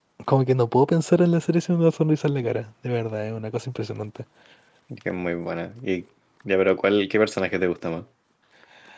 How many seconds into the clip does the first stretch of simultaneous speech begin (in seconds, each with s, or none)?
none